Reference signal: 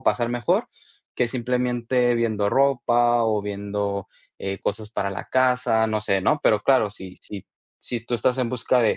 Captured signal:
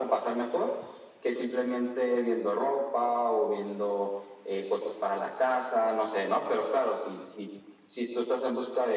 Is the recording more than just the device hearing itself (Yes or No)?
No